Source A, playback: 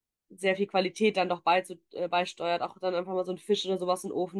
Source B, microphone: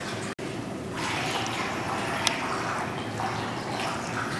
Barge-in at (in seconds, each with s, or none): none